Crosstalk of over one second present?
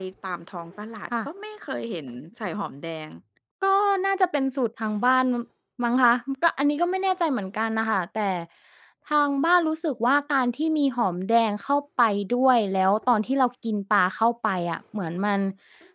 No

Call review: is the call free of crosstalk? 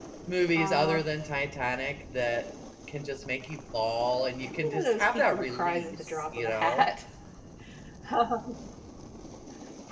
No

